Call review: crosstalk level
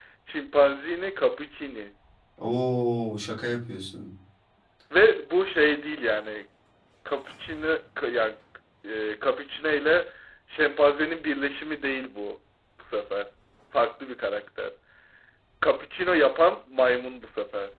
none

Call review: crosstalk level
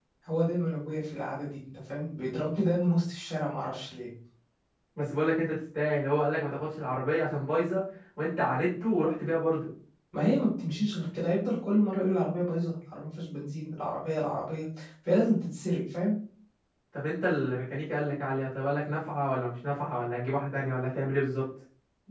none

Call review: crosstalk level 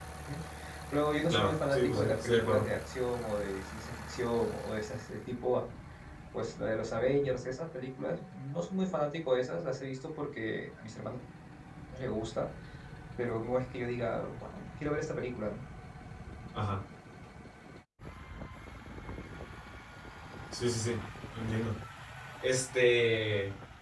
present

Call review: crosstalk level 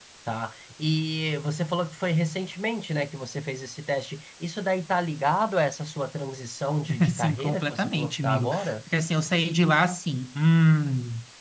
present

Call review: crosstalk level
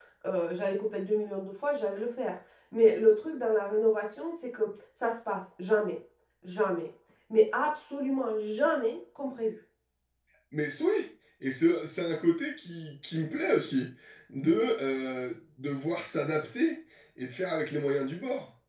none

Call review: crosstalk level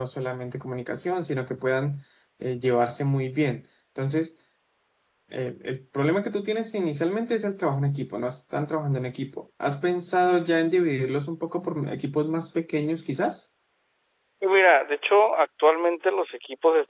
none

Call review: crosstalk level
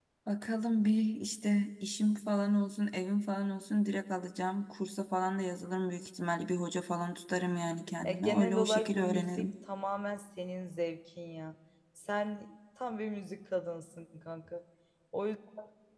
present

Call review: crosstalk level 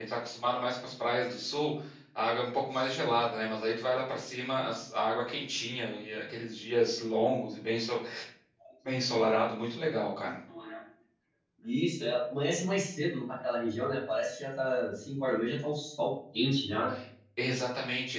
none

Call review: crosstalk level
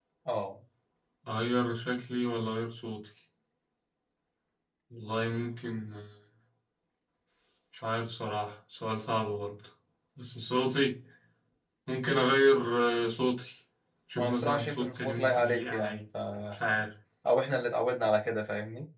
present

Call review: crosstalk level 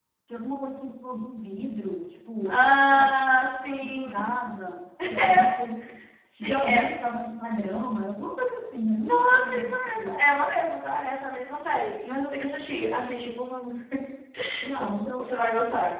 present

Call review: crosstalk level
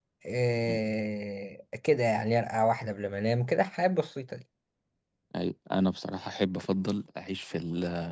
none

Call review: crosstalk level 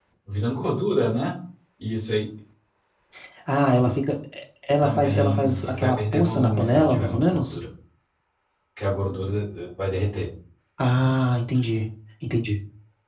present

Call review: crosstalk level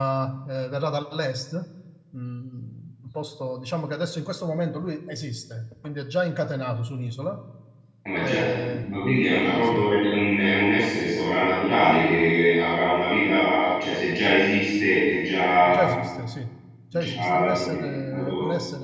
present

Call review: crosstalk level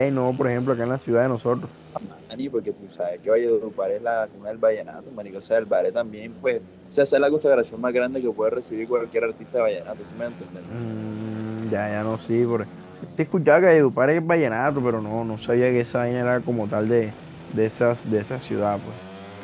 none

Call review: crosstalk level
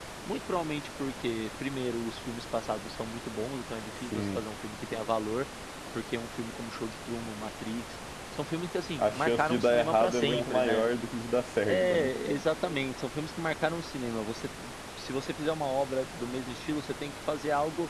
present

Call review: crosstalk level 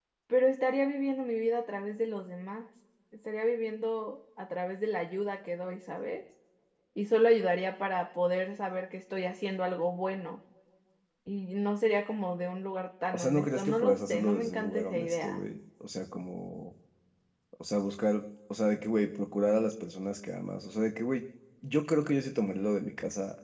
present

